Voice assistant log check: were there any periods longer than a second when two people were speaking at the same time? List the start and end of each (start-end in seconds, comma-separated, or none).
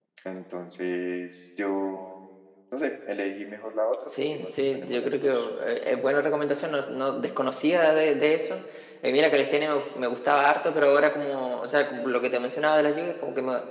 4.1-5.3